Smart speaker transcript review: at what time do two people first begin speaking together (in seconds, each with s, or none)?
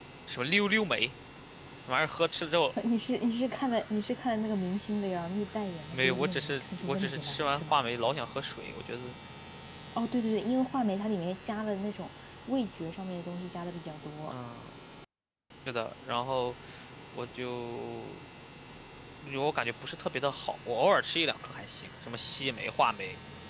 5.9 s